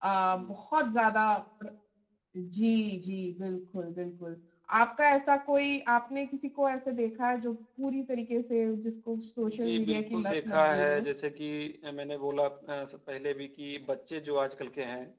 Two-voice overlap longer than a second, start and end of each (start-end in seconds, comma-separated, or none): 9.4-11.1